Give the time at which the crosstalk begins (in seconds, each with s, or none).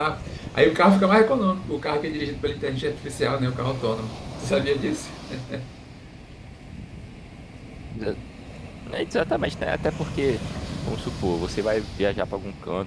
none